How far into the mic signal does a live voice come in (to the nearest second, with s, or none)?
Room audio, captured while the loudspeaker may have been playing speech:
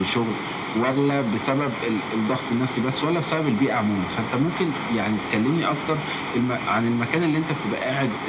none